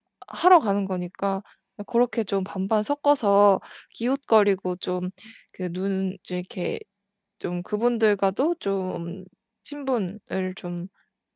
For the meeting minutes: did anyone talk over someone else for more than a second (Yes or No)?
No